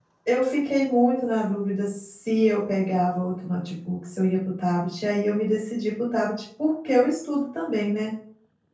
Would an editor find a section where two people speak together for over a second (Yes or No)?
No